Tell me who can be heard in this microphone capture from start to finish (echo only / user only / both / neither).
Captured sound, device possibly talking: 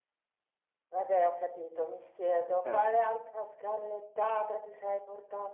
both